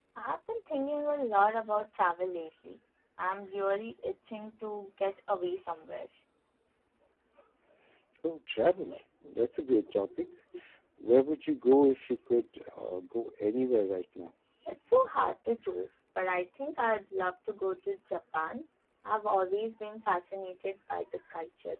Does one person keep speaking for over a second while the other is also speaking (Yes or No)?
No